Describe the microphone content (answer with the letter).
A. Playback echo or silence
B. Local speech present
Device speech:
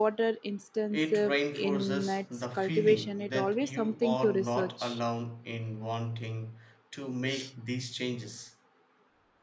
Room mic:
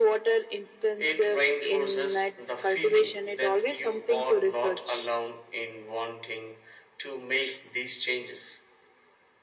A